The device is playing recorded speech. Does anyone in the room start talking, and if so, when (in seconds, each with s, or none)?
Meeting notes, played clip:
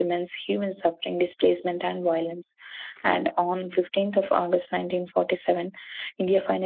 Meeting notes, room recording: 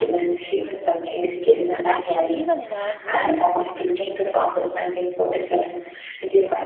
1.7 s